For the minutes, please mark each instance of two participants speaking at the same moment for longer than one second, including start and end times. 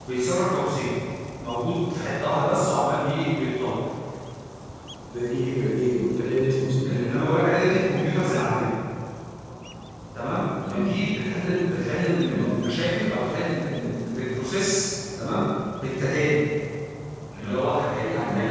none

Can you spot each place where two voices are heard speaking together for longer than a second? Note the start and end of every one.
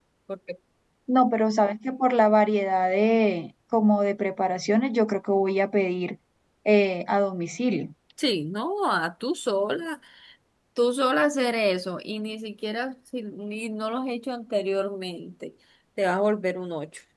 none

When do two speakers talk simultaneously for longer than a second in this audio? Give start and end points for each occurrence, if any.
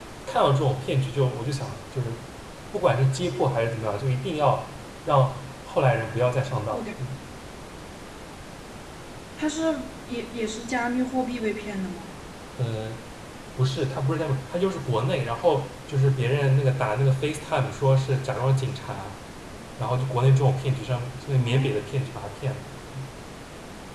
none

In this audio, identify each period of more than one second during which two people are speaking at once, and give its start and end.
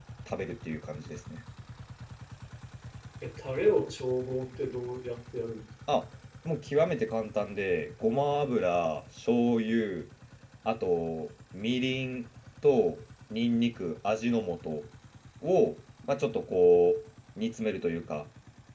none

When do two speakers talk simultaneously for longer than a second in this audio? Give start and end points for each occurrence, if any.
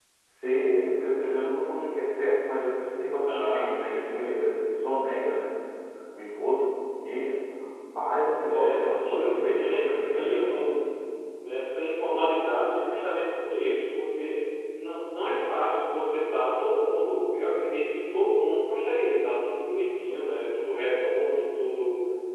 3.3-4.5, 8.5-10.7

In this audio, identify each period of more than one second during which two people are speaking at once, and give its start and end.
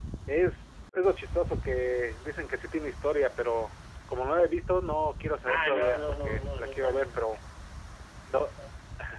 5.5-7.4

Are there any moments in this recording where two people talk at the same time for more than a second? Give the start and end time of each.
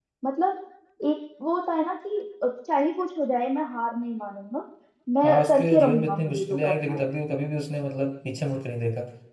5.2-7.0

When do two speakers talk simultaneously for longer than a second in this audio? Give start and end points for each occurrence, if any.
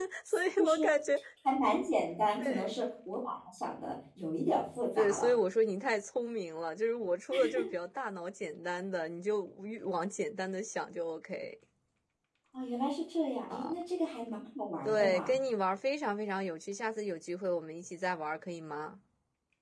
none

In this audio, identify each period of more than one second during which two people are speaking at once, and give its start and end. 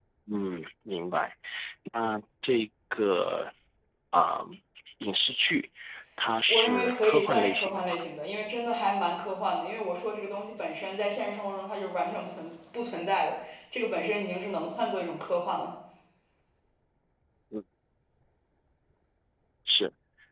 6.5-8.0

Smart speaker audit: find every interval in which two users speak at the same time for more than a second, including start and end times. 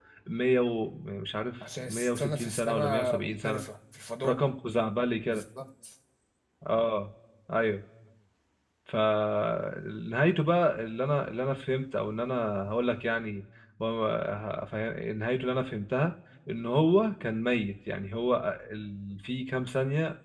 1.8-3.6

